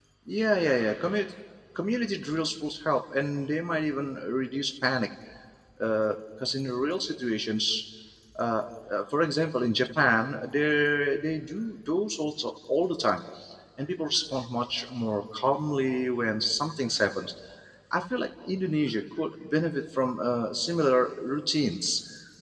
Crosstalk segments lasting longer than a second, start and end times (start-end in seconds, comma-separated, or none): none